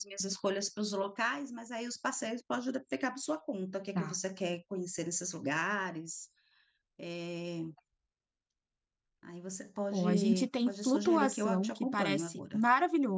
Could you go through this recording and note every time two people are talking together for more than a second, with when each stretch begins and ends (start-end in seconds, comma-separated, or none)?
9.9-12.6